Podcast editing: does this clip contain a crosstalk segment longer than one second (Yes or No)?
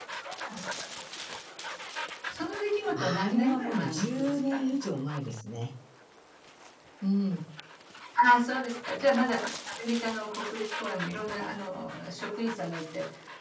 Yes